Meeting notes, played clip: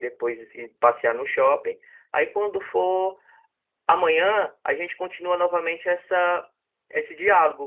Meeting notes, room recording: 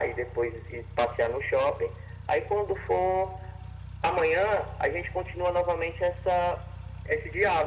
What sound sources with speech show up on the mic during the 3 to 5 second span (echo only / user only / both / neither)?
echo only